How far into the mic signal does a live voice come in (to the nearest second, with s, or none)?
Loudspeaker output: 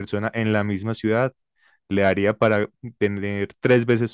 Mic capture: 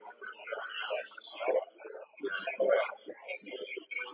none